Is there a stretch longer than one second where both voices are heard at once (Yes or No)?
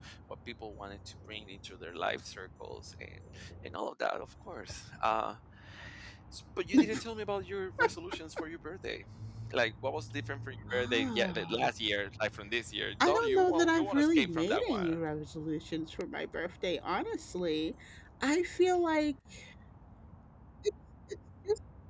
Yes